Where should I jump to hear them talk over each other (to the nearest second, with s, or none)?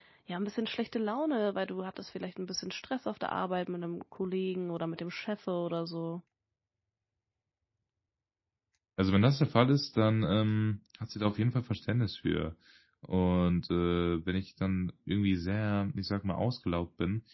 none